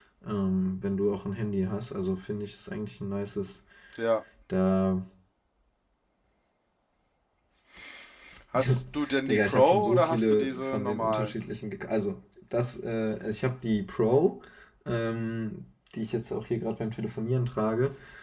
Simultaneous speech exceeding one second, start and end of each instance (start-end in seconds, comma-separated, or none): 9.3-11.3